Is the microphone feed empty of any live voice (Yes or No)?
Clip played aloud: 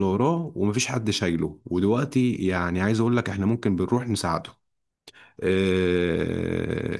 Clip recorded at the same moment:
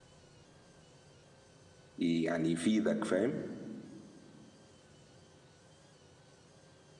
No